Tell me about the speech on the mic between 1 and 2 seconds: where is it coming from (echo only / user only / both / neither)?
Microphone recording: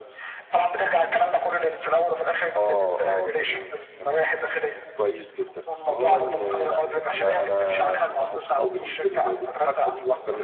echo only